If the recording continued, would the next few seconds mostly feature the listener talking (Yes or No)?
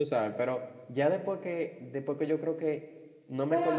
No